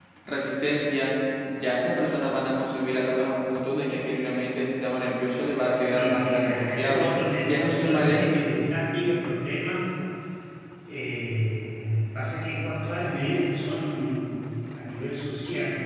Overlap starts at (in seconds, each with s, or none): 5.7 s